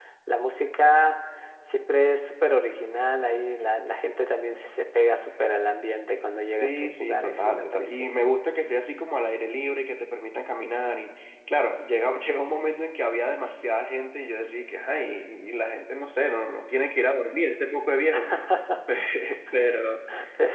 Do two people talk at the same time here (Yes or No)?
Yes